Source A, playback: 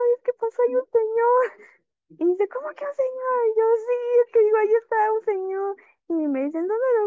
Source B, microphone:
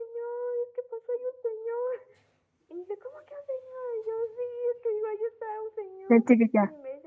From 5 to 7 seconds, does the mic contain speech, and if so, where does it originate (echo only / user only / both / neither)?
both